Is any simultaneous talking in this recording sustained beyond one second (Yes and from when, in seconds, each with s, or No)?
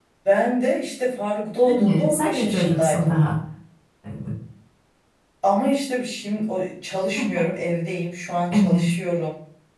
Yes, from 1.7 s